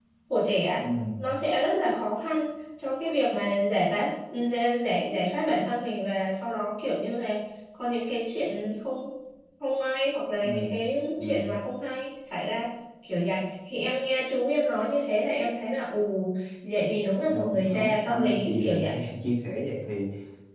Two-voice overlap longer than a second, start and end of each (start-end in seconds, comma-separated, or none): 17.3-19.0